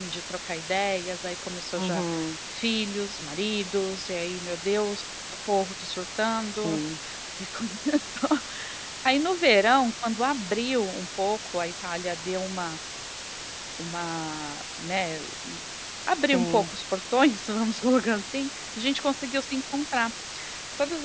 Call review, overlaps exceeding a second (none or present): none